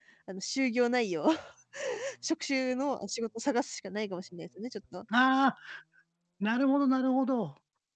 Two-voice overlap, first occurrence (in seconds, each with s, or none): none